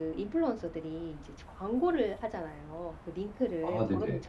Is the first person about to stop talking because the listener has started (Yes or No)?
No